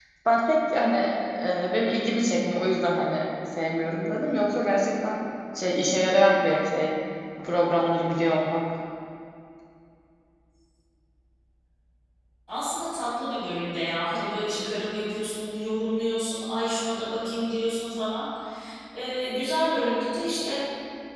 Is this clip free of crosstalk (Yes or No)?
Yes